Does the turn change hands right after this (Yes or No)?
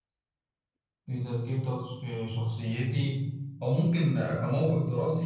No